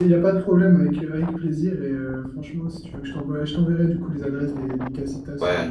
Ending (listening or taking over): listening